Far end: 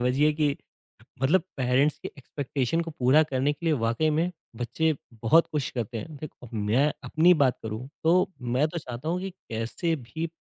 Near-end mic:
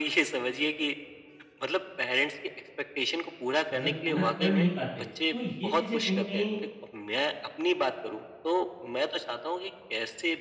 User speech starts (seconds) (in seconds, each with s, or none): 3.7 s